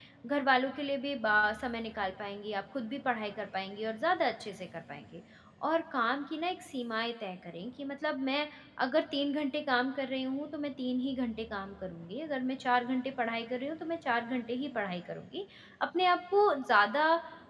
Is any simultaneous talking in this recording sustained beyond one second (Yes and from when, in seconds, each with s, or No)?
No